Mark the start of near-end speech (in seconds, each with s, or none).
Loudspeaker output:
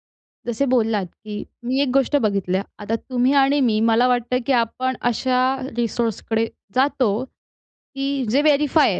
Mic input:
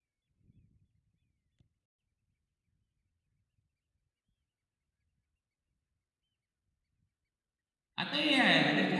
8.0 s